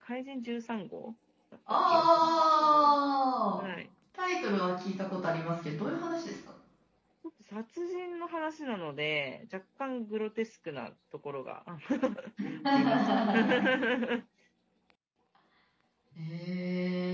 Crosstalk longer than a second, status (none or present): present